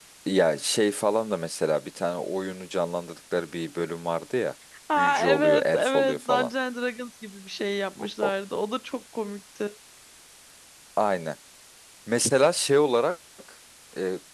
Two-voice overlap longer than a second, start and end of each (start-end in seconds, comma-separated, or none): 5.0-6.5